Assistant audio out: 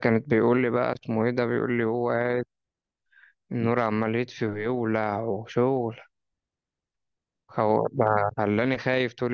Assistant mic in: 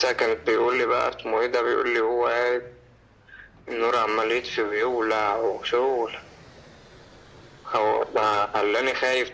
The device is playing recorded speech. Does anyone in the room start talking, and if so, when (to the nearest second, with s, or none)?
none